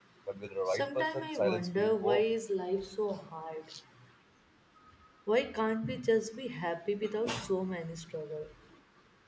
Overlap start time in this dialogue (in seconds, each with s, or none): 0.7 s